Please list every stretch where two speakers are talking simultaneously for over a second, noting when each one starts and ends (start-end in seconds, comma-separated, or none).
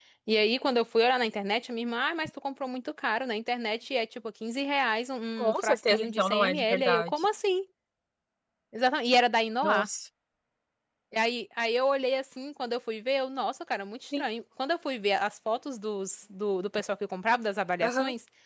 5.4-7.1